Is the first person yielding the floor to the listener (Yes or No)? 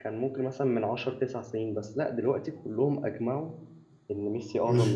Yes